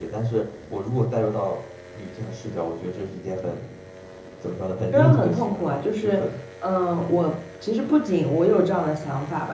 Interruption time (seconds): 5 s

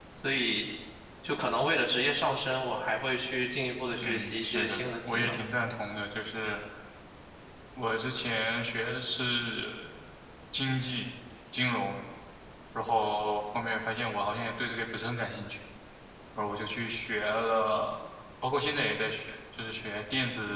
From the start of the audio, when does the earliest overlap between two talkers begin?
4 s

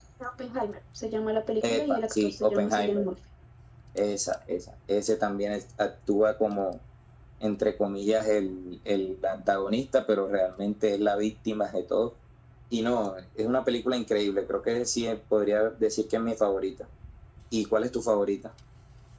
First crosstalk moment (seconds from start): 2 s

